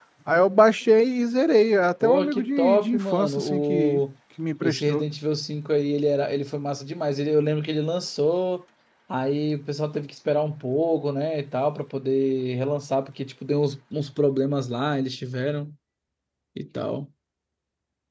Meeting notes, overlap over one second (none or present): present